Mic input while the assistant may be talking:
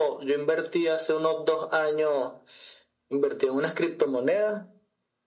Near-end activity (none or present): none